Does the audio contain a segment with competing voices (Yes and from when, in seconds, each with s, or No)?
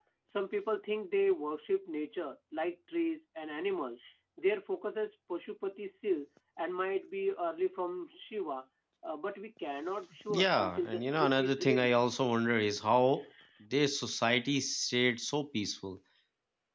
Yes, from 10.3 s